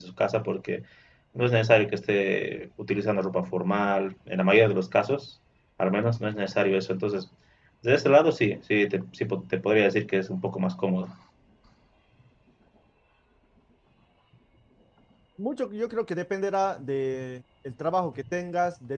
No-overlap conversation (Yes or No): Yes